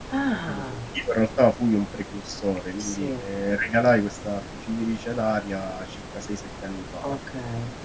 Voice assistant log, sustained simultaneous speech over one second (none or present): none